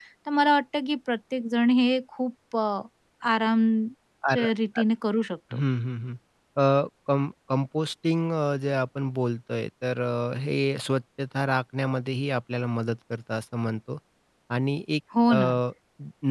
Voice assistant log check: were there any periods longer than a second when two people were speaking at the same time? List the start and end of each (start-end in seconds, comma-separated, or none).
none